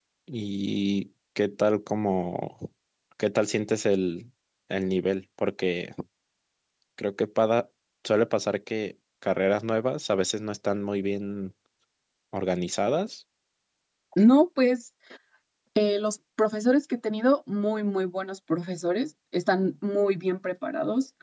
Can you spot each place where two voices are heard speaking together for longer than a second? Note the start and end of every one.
none

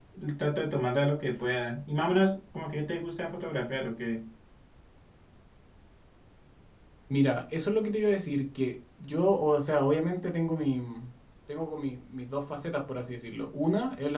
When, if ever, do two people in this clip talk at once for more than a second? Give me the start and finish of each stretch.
none

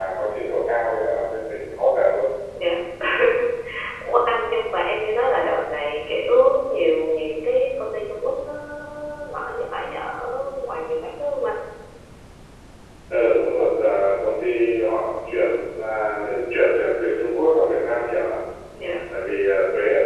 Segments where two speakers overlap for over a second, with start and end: none

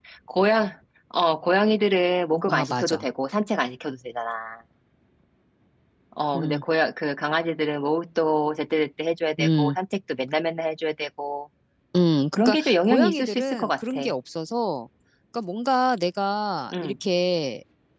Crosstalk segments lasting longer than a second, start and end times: 12.4-14.0

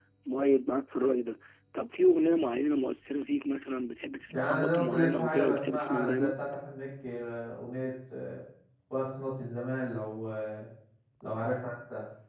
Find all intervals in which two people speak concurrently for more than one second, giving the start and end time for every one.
4.3-6.3

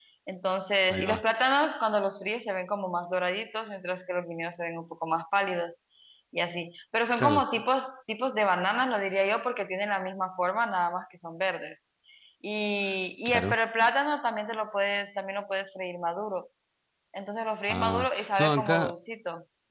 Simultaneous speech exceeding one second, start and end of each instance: 17.7-18.9

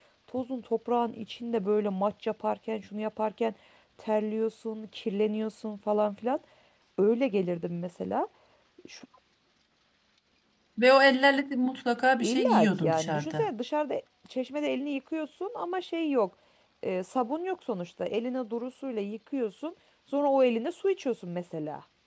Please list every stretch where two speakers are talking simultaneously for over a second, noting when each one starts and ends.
12.2-13.5

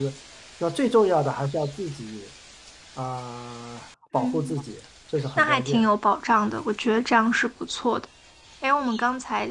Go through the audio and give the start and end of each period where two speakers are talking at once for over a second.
none

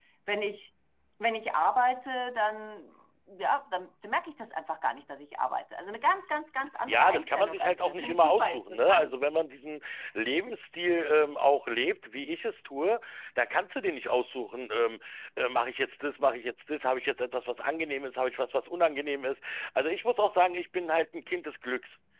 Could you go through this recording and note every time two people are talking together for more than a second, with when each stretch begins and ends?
6.9-9.2

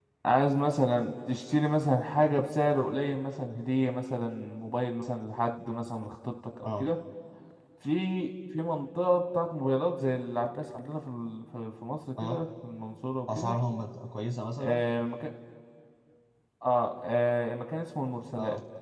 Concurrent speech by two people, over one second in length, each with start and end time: none

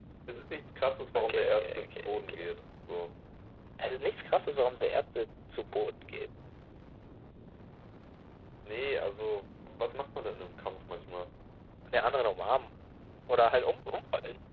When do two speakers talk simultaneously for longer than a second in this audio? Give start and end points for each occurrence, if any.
1.2-2.5

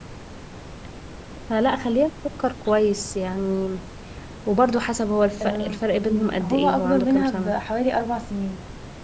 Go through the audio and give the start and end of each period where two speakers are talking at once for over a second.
6.0-7.6

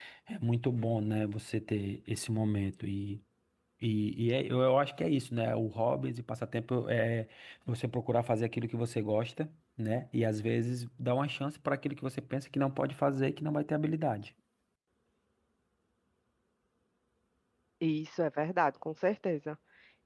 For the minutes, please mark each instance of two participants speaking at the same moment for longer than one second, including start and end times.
none

